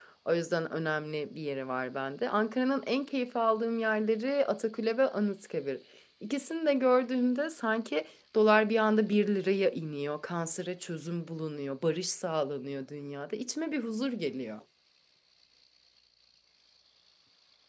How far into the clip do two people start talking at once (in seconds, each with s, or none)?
none